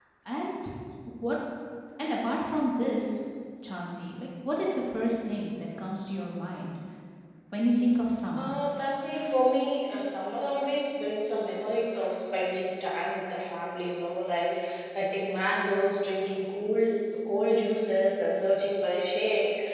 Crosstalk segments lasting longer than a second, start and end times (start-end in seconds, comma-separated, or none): none